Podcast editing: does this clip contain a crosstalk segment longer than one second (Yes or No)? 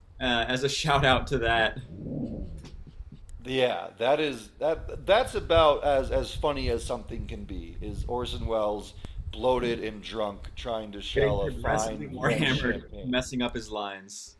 Yes